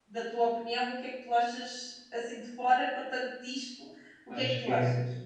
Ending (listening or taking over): taking over